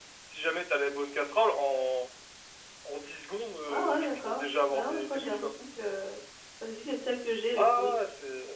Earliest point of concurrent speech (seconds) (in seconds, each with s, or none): 3.7 s